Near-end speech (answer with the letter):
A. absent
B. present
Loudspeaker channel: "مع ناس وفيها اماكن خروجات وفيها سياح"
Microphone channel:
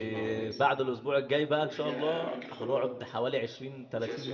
B